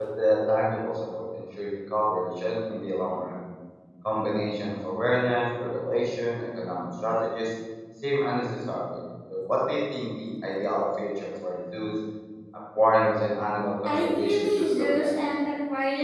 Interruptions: present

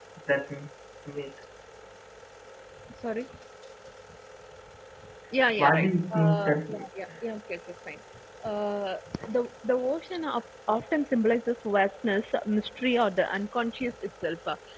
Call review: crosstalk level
present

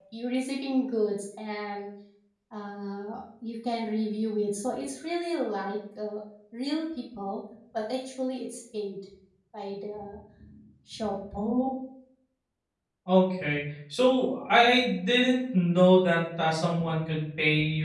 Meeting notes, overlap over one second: none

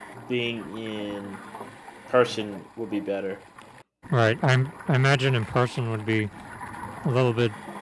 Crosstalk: none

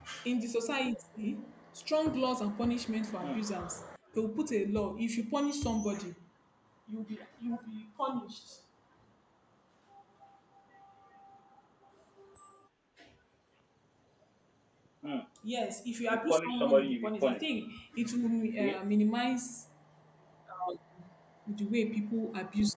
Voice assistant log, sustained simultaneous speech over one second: present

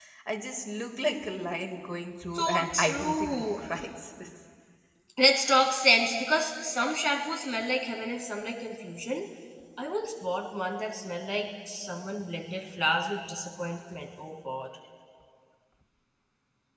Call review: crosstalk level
present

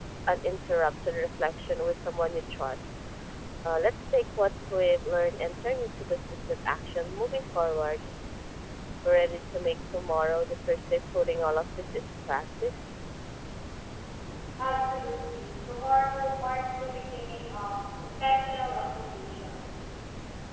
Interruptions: none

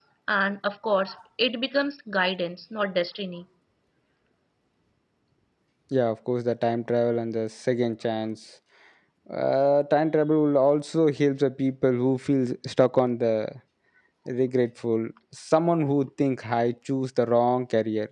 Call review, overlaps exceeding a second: none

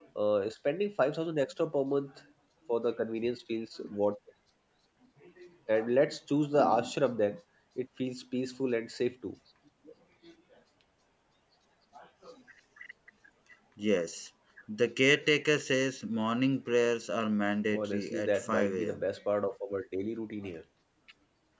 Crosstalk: present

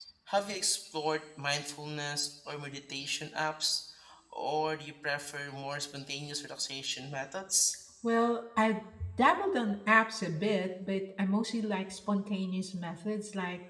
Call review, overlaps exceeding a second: none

